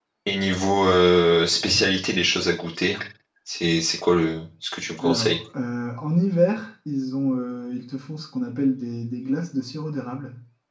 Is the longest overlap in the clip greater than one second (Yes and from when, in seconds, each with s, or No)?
No